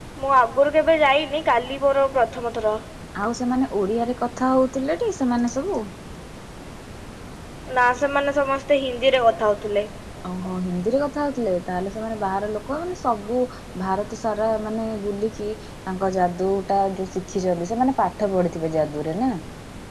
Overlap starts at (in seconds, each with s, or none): none